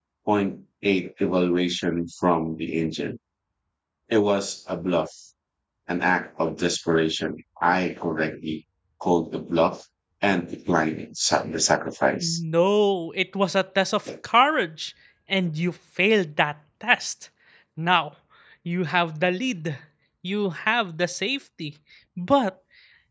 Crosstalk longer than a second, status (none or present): none